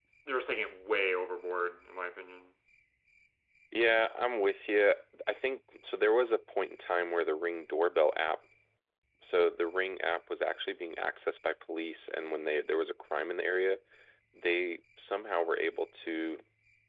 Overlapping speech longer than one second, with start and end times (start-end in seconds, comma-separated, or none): none